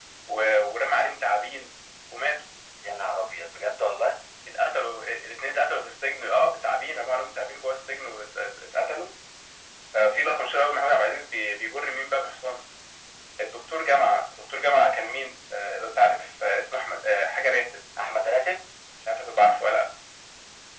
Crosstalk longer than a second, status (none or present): none